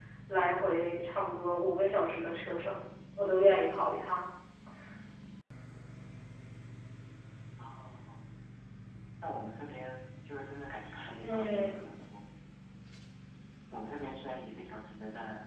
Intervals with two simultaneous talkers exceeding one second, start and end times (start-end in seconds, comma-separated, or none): none